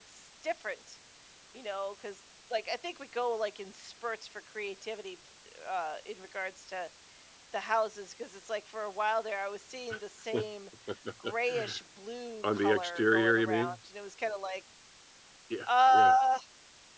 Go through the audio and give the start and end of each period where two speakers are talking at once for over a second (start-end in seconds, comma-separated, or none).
12.4-13.8